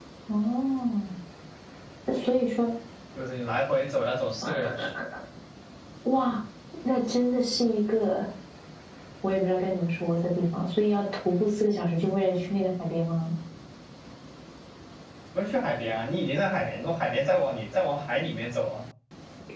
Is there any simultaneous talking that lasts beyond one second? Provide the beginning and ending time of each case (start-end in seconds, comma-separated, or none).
none